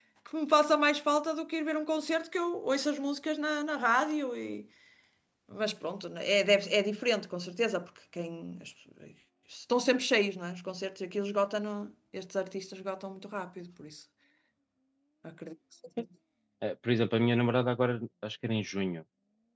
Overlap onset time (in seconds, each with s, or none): none